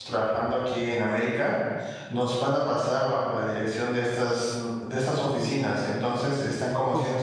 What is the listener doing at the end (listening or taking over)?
listening